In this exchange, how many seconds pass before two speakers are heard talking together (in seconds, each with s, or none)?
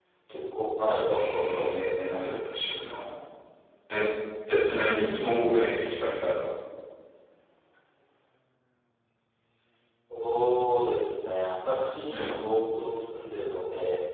1.2 s